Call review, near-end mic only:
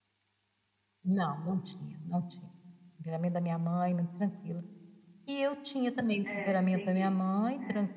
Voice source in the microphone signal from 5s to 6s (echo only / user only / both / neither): echo only